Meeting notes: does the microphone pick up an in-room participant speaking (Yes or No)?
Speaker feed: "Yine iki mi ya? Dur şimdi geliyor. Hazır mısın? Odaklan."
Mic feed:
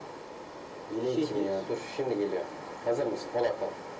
Yes